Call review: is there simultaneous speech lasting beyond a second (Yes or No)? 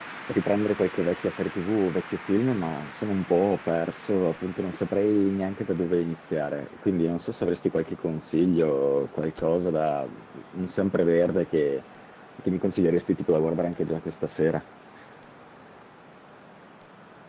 No